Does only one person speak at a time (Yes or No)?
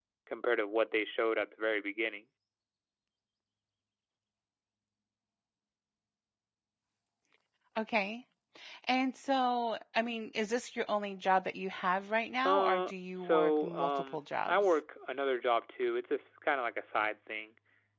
No